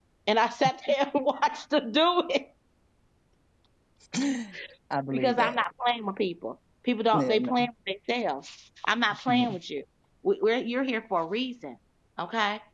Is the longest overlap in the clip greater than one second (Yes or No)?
No